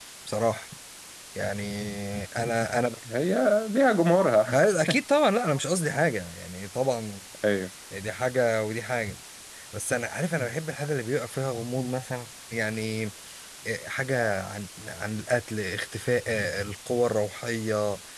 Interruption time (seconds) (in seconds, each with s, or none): none